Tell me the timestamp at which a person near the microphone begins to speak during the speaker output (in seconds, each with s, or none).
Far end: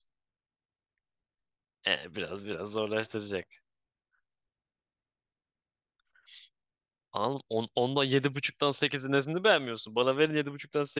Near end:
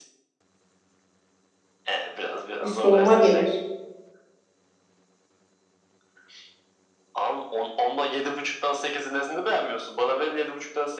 2.6 s